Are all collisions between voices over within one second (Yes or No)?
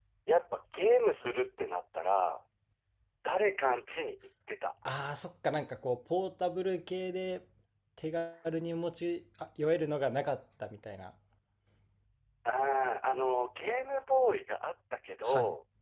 Yes